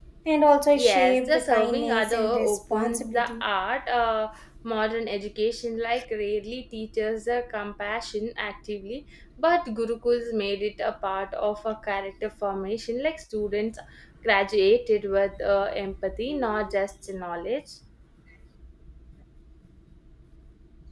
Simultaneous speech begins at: 0.8 s

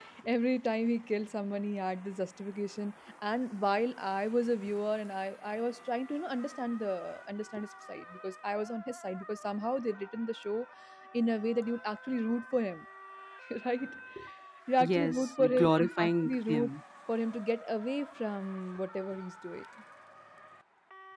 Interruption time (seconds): 14.8 s

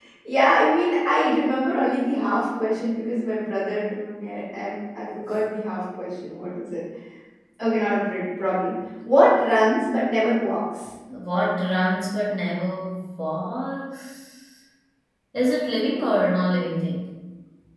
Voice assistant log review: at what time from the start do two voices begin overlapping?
none

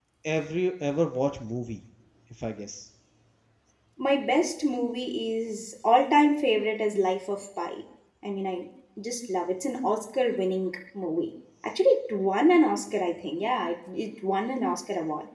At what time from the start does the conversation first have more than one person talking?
none

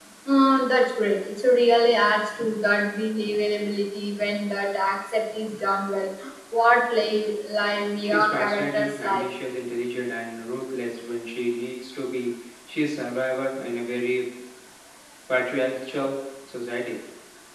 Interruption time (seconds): 8.0 s

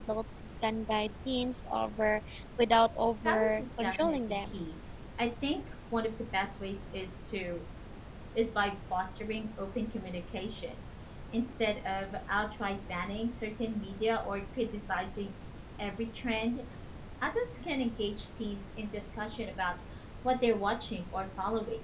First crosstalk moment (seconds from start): 3.2 s

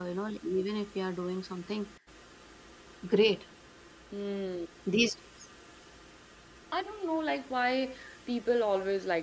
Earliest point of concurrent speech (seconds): none

